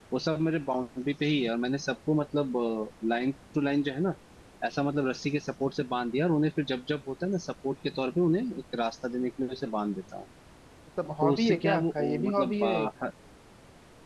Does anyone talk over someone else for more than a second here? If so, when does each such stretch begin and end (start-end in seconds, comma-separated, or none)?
11.2-12.9